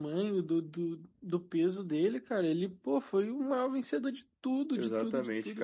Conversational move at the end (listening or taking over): taking over